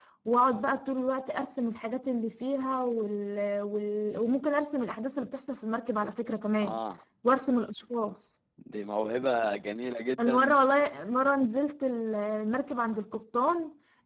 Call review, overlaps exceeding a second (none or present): none